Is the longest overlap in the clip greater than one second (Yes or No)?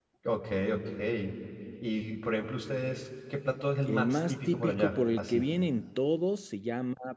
Yes